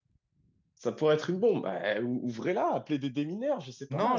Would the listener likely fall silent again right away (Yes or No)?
No